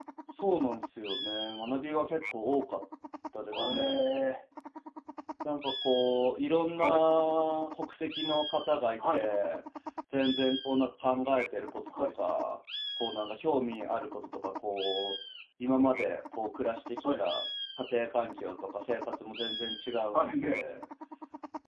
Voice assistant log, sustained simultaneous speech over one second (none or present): none